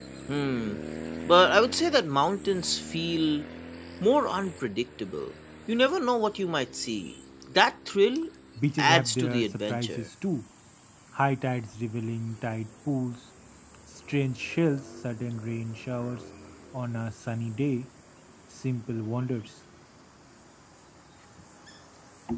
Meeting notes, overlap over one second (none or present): present